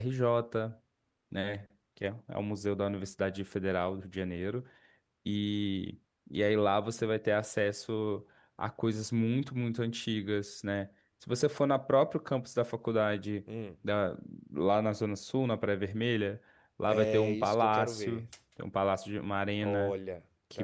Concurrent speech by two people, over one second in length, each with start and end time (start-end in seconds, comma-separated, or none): 16.9-18.2